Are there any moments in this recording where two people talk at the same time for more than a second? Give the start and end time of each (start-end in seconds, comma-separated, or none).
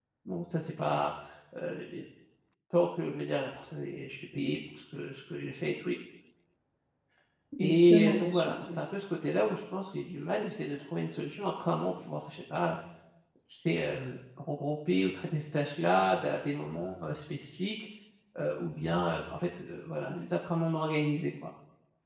7.6-8.8